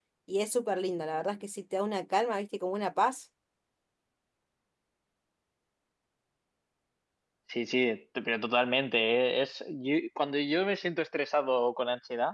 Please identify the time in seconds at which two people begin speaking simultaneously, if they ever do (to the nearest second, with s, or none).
none